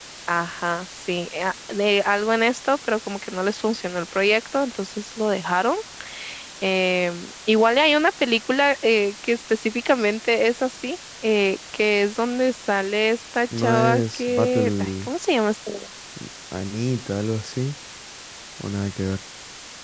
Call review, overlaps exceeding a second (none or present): present